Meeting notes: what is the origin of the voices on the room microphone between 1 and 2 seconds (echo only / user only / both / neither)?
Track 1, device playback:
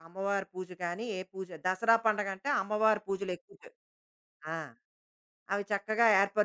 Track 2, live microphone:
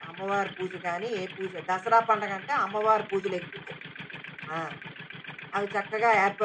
echo only